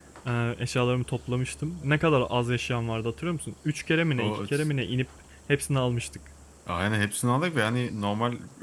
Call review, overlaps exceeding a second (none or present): none